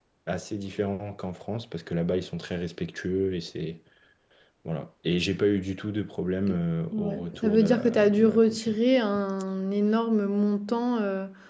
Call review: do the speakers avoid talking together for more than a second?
No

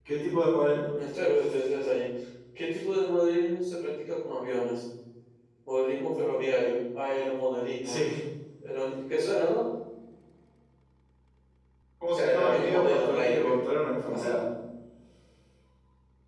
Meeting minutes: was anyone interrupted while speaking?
Yes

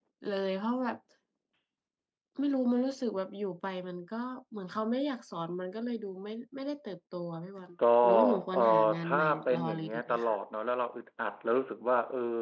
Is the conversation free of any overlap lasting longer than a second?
No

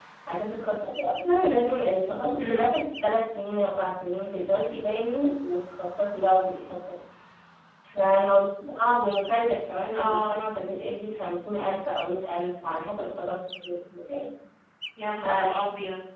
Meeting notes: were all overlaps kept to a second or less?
Yes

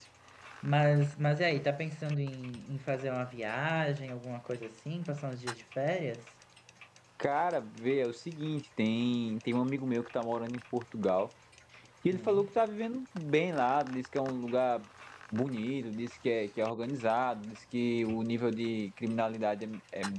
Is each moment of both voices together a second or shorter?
Yes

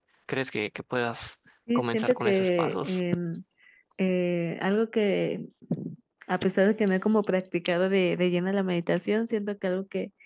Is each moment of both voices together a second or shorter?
No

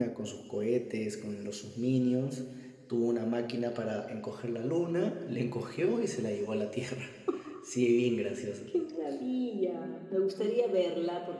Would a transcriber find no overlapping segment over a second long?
Yes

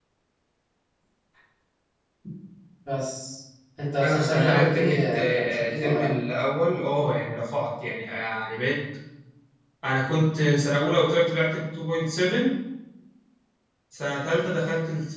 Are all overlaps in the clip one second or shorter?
No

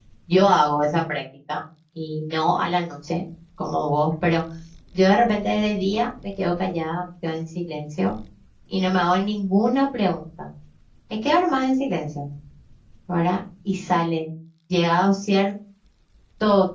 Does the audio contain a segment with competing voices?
No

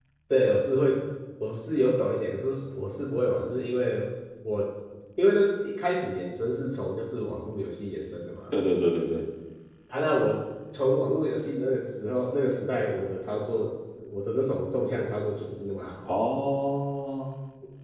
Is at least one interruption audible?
No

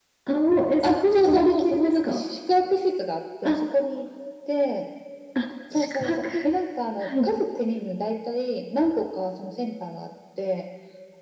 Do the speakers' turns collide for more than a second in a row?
Yes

